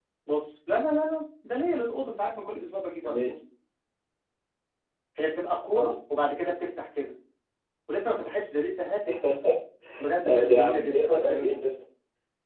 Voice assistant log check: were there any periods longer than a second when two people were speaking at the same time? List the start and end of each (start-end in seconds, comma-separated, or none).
10.3-11.6